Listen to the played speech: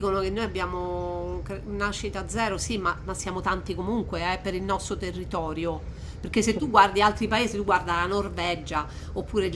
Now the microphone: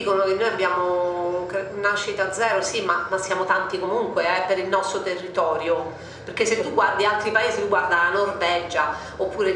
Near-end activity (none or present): none